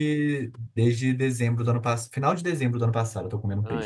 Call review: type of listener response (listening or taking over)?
taking over